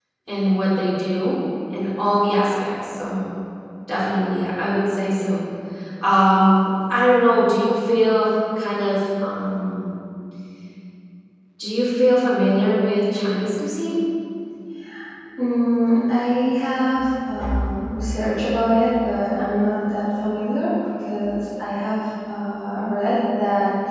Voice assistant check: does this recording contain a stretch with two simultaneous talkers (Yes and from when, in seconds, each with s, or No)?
No